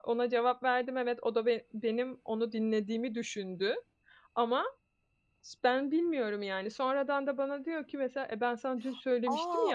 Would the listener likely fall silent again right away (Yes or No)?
No